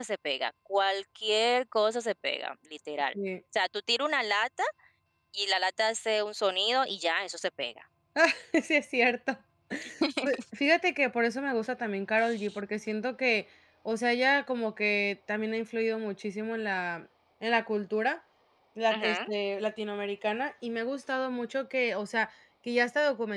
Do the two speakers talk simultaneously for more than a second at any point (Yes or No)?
No